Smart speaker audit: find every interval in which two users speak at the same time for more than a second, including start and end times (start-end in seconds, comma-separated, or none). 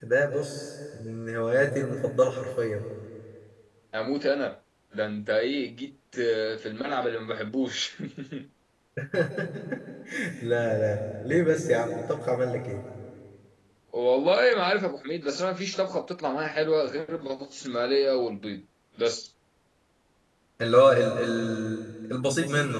none